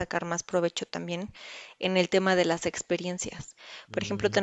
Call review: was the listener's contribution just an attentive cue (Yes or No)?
Yes